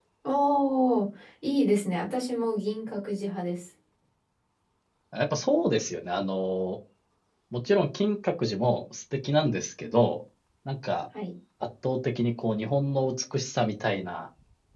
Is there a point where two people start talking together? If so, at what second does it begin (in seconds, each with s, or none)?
none